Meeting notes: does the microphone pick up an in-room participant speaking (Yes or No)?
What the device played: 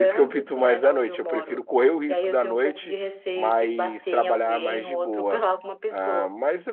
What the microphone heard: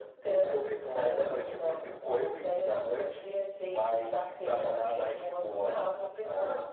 No